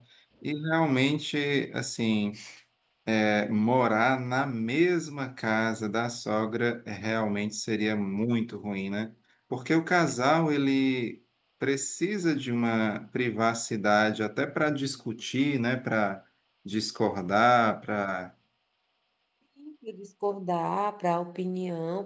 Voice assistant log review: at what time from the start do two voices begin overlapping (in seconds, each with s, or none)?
none